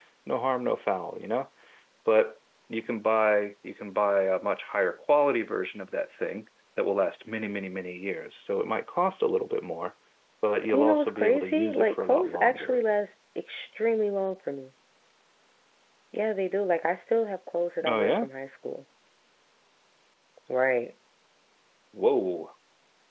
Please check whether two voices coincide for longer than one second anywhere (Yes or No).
Yes